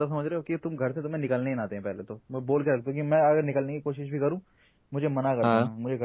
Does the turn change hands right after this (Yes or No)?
No